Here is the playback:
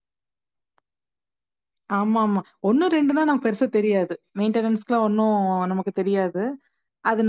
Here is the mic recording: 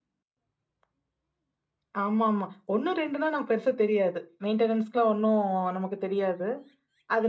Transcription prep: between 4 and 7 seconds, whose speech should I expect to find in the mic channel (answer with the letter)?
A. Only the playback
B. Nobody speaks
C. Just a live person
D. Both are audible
A